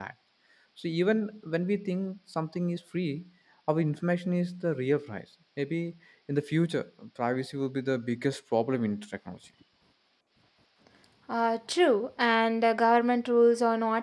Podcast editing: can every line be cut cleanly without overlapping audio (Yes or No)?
Yes